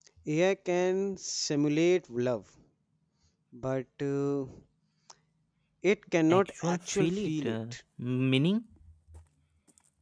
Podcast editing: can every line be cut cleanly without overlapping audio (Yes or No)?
No